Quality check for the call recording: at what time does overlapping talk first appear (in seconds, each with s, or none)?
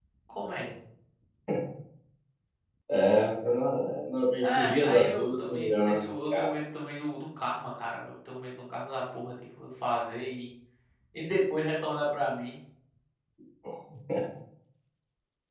4.4 s